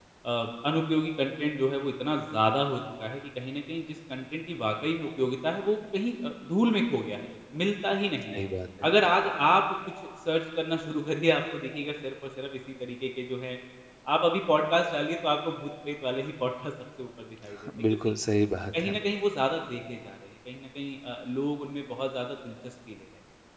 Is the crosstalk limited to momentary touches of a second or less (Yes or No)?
Yes